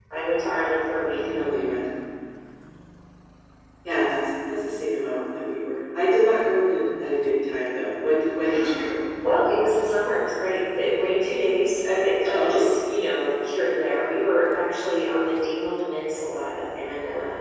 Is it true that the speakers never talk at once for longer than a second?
Yes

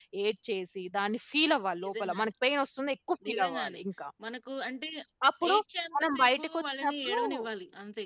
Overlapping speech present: Yes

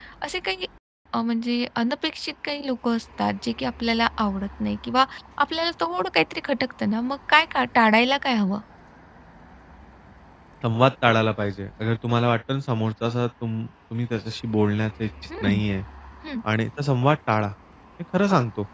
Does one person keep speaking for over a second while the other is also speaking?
No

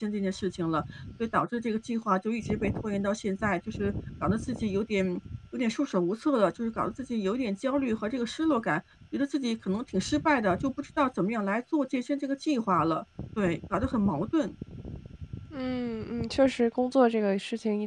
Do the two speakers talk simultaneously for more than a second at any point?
No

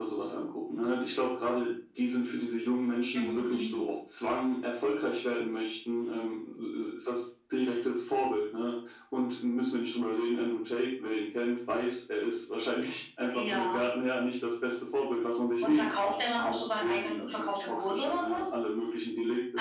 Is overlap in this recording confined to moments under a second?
No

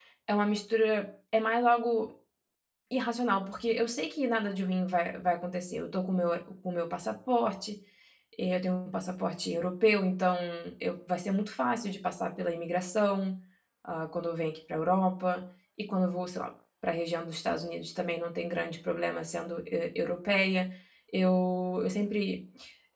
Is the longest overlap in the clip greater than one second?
No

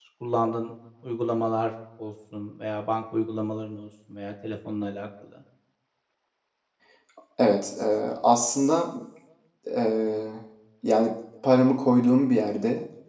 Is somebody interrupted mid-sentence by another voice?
No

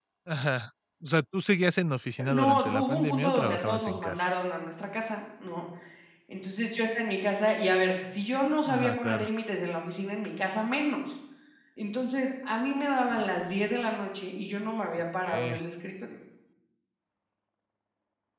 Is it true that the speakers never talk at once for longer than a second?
No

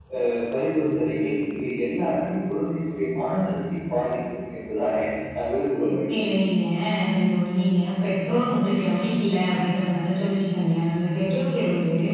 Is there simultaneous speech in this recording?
No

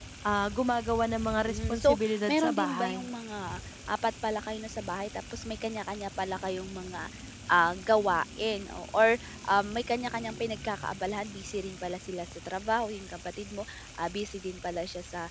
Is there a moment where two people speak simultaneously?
Yes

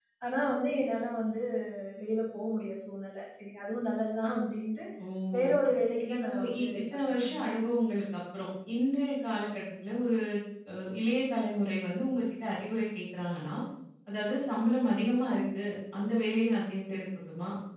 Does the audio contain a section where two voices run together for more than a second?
Yes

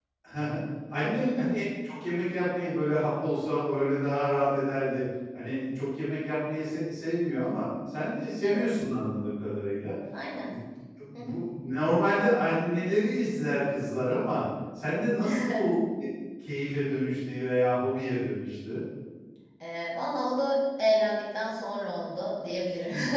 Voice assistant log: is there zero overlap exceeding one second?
Yes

